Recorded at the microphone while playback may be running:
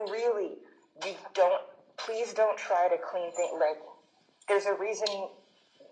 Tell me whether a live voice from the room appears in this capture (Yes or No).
No